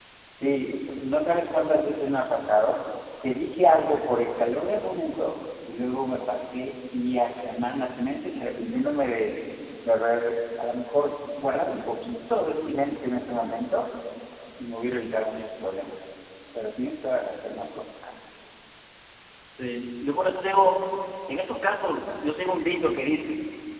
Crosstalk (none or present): none